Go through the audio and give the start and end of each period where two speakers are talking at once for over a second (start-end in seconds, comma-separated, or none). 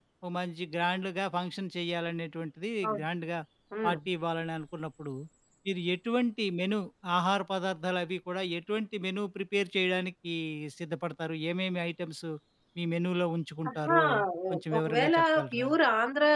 14.5-15.7